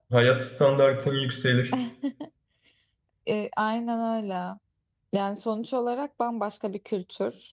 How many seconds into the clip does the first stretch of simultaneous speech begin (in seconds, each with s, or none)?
none